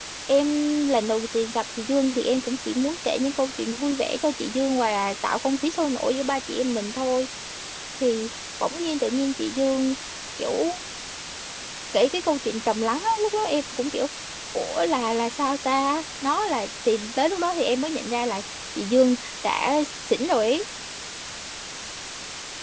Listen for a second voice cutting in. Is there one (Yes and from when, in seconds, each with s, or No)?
No